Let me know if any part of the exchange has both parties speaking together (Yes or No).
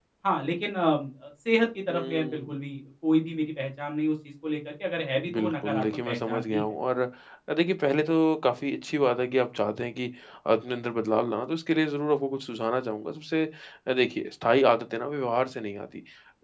Yes